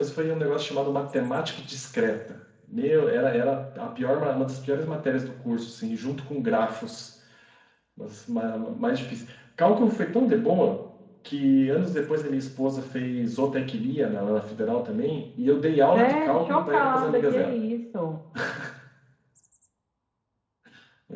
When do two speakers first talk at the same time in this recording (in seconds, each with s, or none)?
15.9 s